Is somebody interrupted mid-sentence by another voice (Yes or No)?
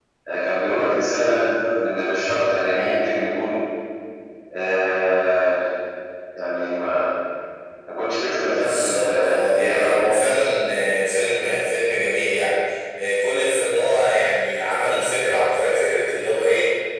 Yes